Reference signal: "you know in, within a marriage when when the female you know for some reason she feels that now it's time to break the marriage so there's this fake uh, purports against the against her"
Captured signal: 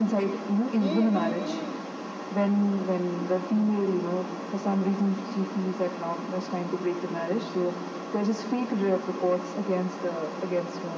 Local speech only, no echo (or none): Mm-hmm.